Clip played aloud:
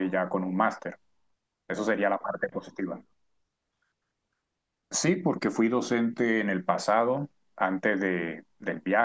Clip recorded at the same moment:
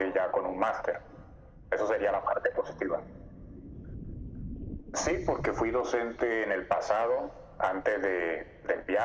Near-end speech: none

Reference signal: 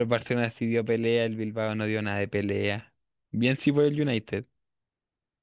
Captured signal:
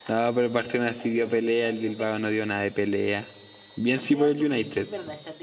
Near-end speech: present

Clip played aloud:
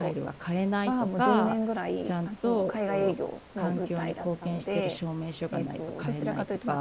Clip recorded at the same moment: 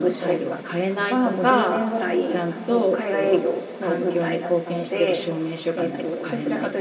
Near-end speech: none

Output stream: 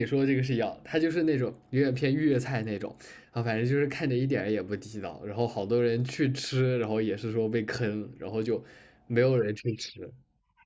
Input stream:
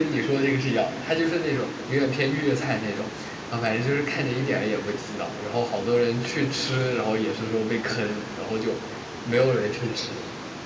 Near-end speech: none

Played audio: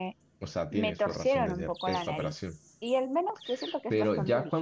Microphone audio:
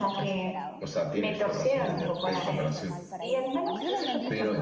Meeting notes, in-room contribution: present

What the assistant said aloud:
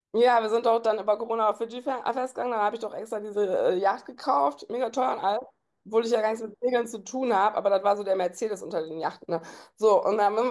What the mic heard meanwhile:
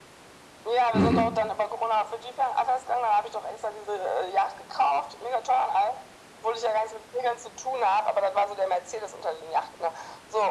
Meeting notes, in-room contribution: present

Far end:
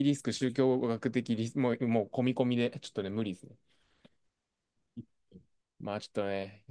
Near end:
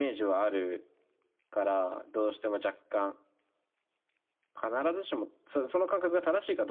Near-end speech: present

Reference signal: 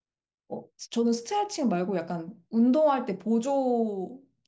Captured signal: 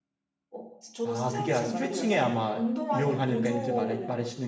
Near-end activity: present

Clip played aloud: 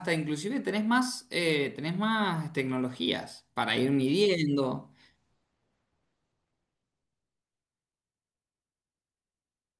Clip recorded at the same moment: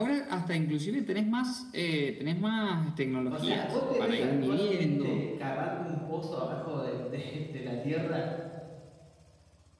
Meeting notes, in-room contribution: present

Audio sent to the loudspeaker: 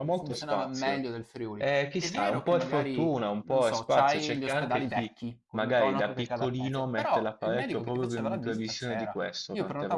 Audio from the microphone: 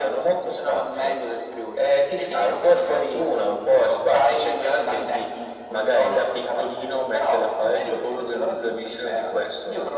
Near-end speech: none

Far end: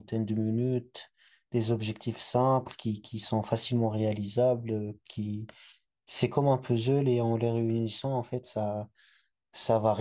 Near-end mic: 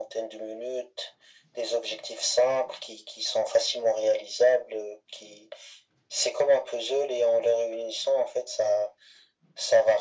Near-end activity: none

